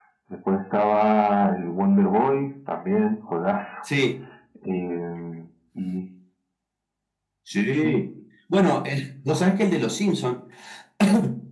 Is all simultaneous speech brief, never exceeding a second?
Yes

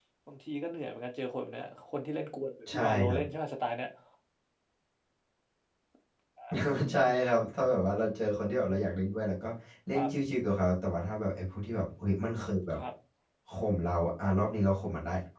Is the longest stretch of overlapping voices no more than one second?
Yes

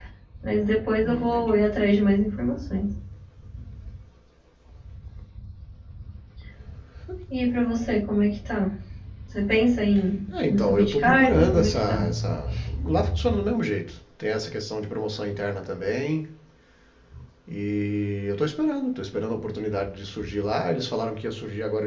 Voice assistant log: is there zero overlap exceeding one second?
No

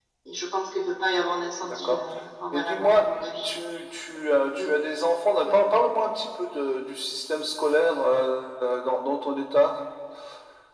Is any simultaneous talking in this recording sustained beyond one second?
No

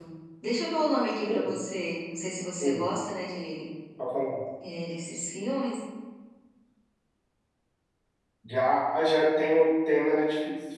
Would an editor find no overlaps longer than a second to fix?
Yes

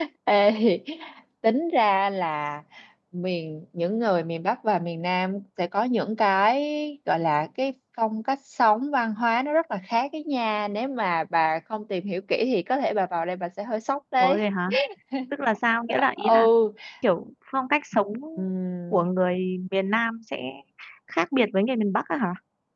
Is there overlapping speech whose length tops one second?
No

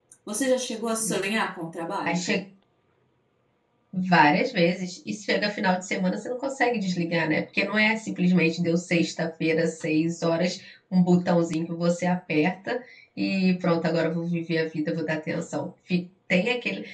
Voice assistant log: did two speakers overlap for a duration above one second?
No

